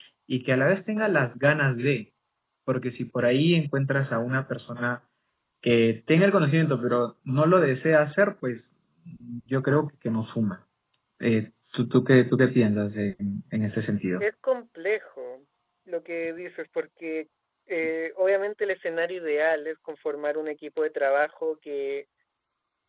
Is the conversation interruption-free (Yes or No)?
Yes